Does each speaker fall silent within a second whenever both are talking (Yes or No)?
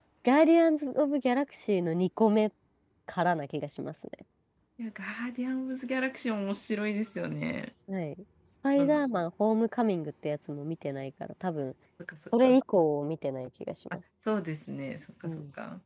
Yes